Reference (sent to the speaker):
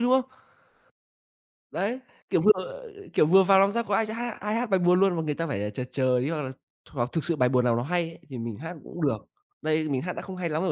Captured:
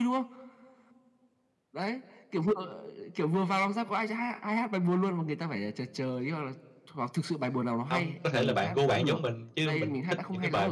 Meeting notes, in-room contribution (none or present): present